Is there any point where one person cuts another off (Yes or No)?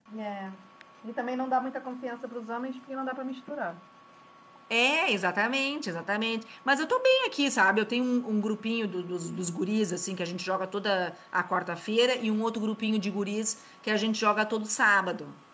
No